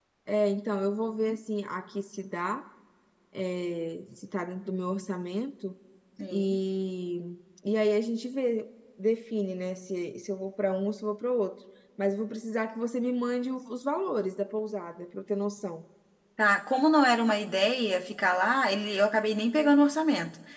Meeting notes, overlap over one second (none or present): none